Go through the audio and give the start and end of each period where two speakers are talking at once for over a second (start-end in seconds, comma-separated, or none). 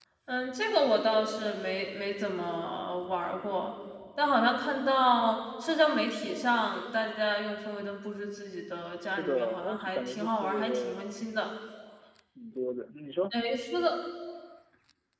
9.0-11.2